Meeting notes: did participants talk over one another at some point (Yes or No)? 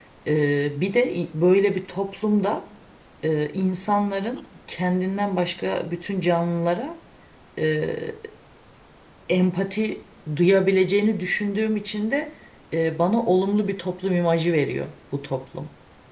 No